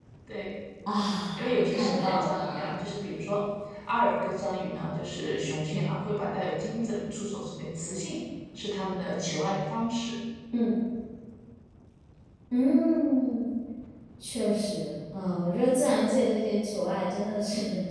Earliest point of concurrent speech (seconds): 1.4 s

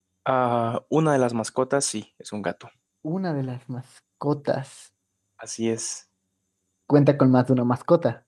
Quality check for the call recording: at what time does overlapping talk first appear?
none

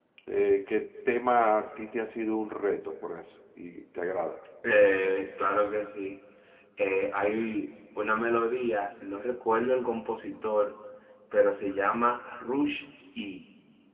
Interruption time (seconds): none

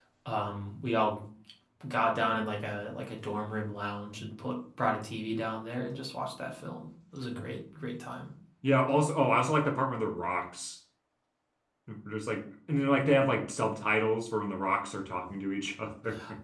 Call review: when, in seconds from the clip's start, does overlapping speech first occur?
none

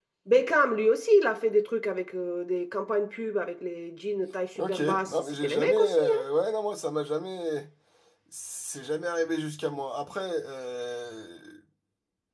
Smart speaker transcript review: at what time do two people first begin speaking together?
4.6 s

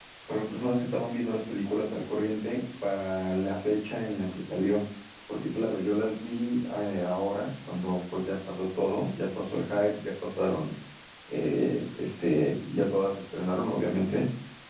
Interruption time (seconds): none

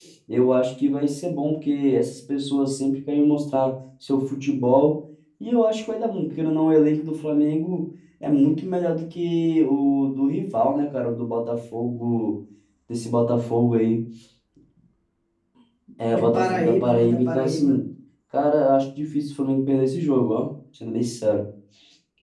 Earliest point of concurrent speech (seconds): 16.1 s

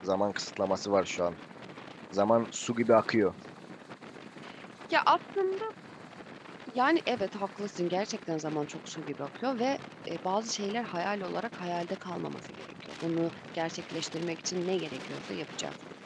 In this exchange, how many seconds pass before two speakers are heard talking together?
none

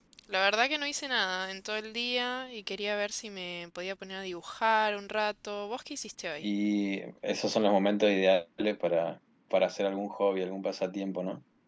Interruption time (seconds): none

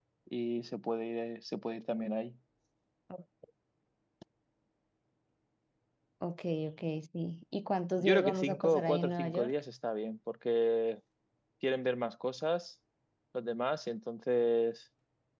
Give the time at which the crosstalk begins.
8.0 s

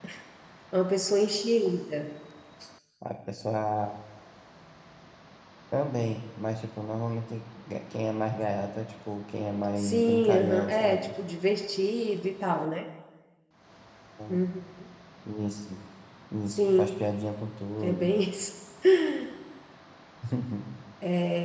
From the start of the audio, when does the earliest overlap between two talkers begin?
9.8 s

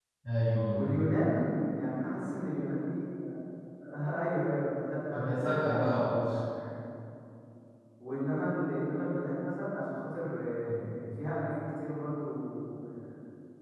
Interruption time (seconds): 5.1 s

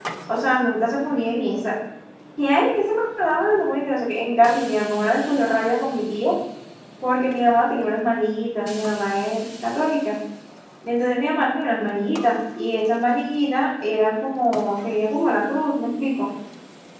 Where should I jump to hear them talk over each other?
none

